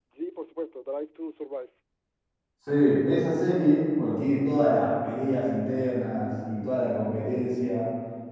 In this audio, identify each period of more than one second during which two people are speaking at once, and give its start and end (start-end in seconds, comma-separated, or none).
none